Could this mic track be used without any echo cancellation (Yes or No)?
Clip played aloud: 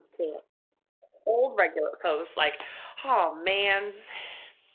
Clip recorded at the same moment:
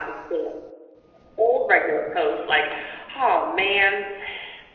No